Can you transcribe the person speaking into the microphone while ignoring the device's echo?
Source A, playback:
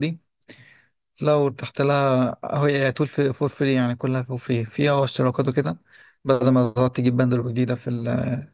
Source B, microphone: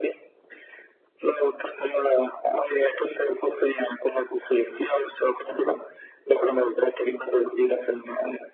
none

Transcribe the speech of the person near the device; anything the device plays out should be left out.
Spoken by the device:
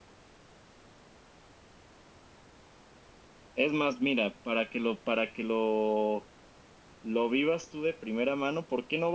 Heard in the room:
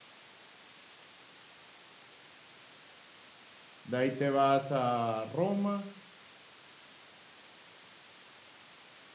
de ahí te vas a Roma

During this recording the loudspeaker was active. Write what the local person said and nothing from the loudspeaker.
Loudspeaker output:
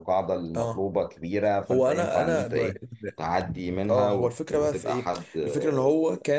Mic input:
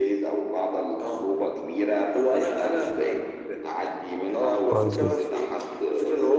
كويس جدا

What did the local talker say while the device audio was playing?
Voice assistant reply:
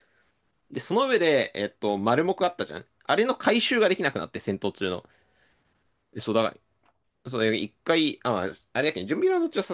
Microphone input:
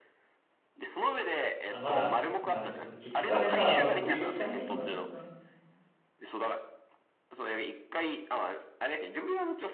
あ、まだ、まあでもその結局あれさ、木しか使えないのがちょっとな。

